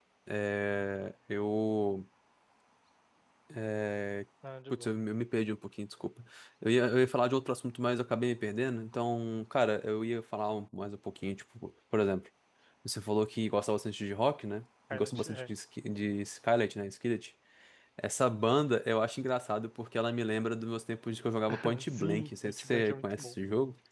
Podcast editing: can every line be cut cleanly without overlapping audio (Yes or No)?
No